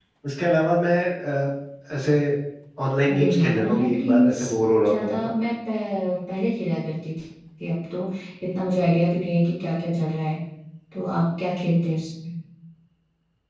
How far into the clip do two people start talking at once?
3.1 s

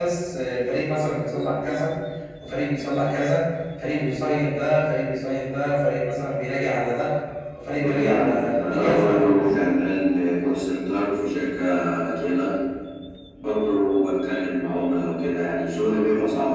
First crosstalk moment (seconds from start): 7.8 s

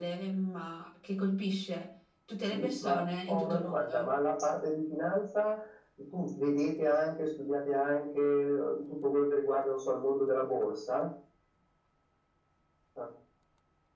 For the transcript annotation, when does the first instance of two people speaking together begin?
2.5 s

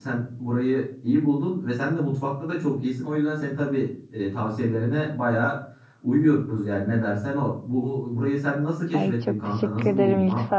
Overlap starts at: 8.9 s

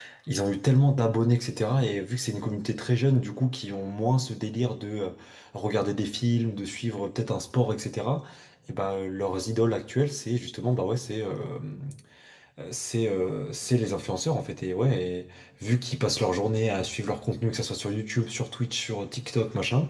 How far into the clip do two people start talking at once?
none

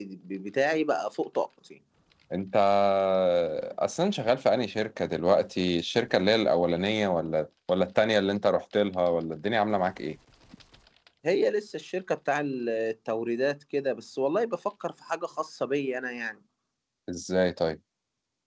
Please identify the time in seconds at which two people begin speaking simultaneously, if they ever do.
none

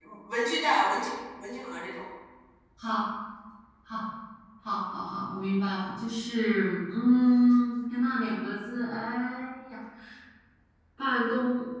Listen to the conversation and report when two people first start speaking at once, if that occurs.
none

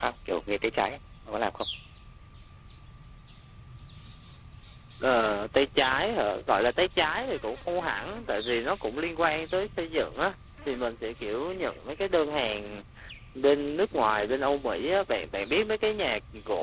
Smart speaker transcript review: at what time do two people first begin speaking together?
none

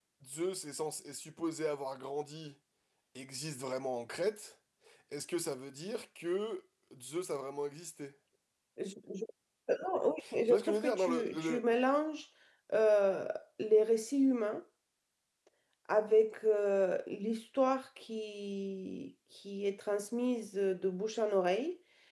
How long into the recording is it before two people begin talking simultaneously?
10.2 s

